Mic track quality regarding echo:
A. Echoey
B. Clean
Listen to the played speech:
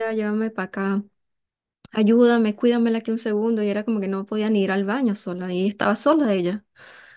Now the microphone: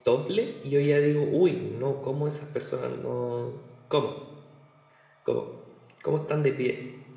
B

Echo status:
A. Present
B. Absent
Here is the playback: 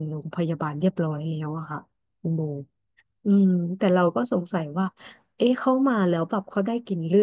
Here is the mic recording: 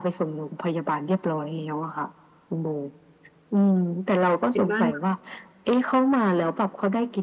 A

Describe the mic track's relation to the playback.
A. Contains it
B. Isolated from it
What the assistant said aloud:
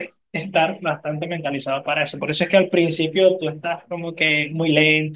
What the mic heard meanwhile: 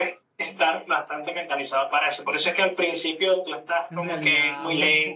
A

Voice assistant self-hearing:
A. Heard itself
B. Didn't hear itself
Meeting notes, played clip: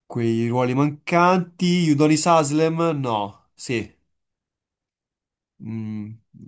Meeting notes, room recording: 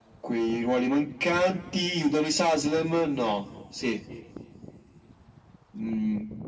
A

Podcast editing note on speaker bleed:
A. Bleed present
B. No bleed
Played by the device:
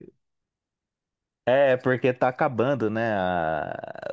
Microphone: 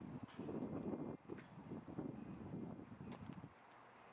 B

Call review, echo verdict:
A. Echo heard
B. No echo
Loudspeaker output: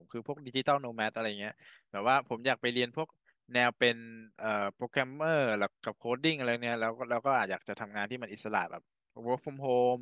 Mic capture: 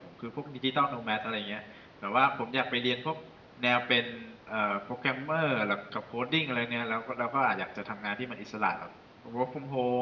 A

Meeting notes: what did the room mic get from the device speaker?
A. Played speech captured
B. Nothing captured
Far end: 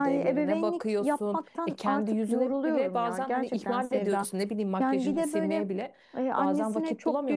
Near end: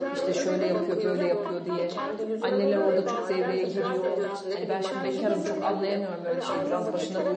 A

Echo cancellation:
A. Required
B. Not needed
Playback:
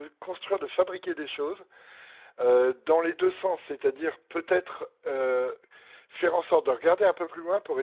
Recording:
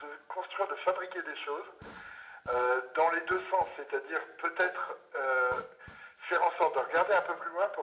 A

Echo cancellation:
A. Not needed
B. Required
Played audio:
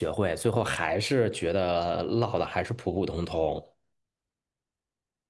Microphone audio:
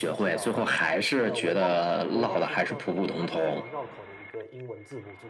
B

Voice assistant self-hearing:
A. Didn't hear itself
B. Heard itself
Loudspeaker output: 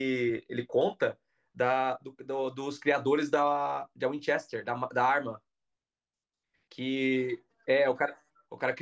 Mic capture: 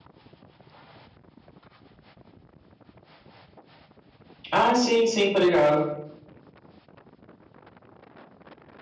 A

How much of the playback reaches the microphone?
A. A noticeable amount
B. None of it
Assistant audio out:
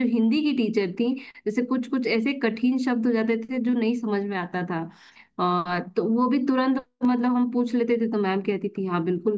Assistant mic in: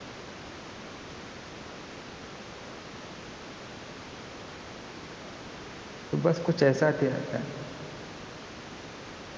B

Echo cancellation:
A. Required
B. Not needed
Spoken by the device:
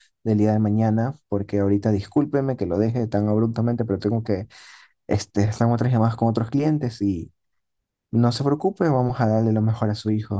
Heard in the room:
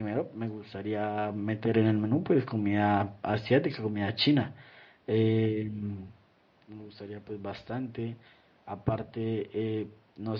B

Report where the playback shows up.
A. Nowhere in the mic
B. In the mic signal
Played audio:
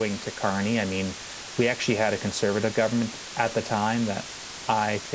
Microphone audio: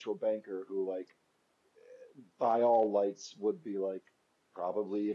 A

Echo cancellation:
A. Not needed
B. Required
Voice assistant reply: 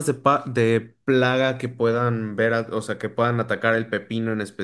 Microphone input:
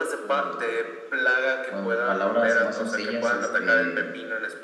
B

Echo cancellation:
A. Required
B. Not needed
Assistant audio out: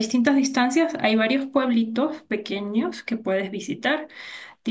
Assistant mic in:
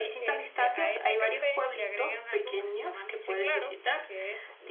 A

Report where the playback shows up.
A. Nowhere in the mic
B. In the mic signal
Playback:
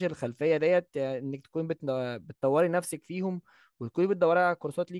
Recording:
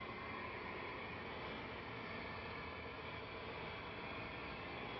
A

